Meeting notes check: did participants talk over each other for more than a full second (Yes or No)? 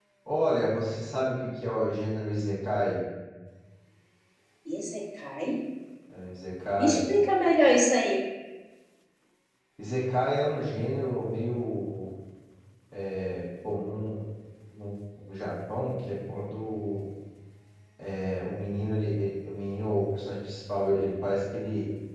No